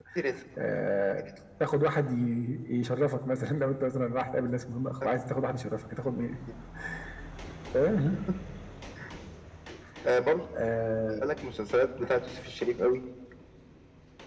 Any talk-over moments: No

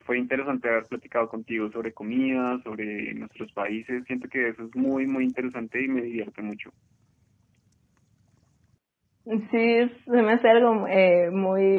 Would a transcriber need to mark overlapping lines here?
No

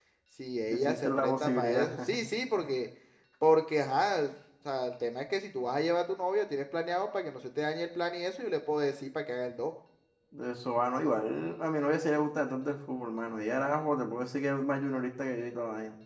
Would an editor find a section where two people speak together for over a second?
Yes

